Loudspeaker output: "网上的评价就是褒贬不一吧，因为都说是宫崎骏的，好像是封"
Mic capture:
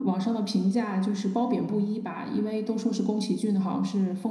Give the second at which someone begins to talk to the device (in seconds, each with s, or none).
none